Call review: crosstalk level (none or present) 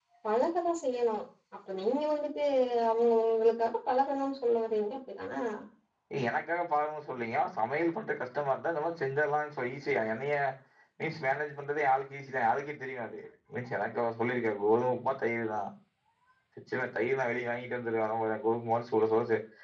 none